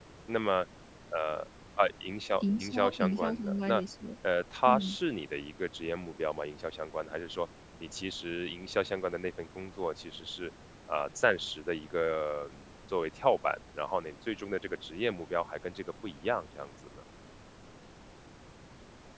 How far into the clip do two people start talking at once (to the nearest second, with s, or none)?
2 s